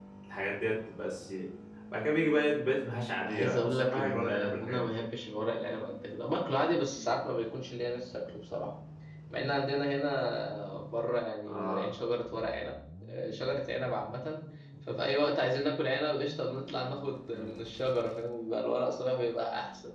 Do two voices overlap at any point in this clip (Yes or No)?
Yes